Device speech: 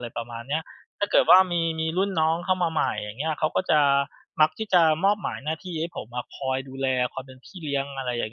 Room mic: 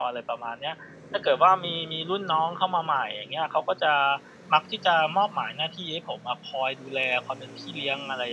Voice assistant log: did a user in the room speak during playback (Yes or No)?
No